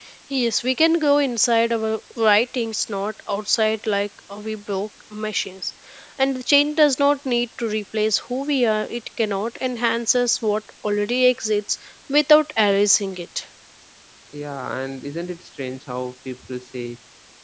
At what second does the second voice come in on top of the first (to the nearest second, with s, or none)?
none